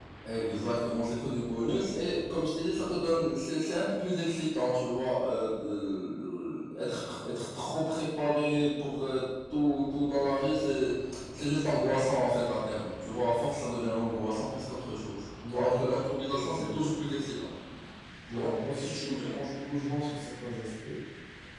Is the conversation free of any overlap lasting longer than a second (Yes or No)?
No